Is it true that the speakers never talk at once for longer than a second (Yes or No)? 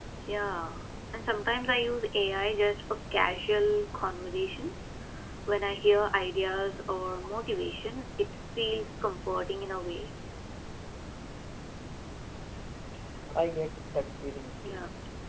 Yes